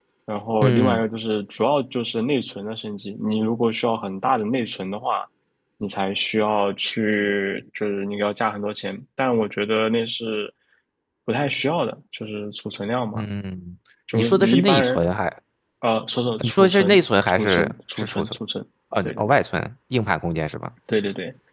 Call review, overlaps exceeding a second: present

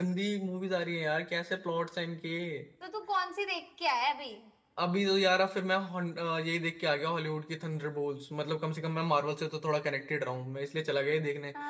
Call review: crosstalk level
none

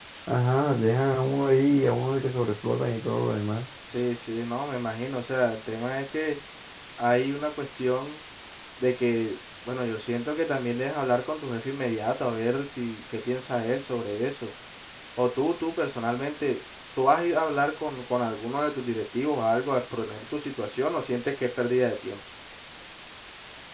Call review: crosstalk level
none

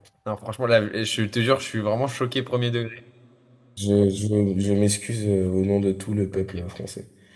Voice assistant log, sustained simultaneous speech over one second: none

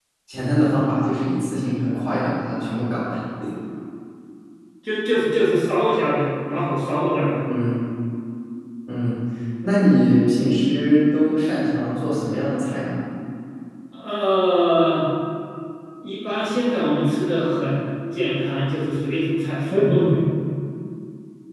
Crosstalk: none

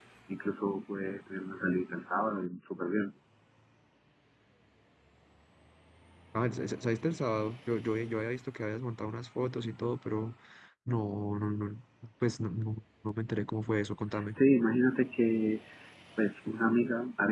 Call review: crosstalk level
none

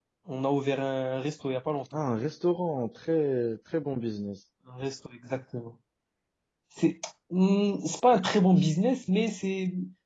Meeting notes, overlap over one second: none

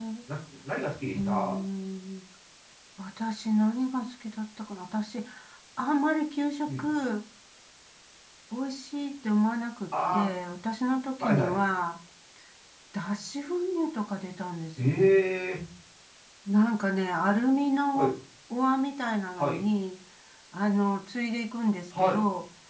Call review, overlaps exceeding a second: none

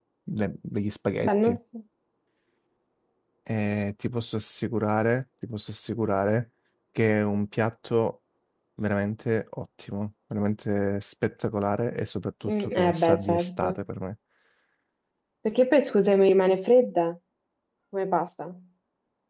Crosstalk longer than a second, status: present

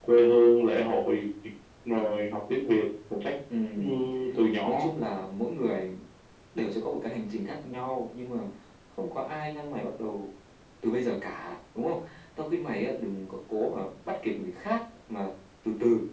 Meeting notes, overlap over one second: none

